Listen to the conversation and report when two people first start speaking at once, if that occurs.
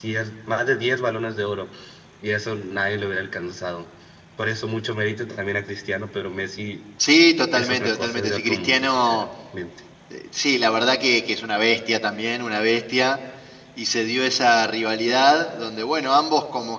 7.5 s

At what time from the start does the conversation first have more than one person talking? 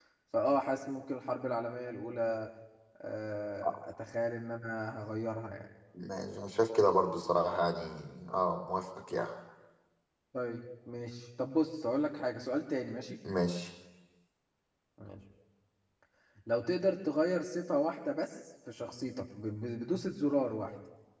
none

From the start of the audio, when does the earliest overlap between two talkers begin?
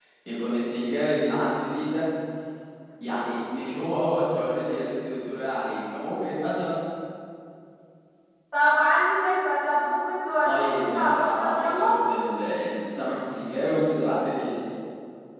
10.4 s

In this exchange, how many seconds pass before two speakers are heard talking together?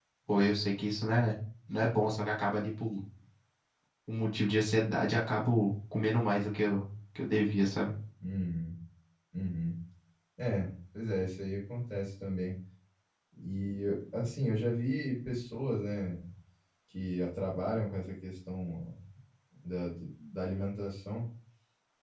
none

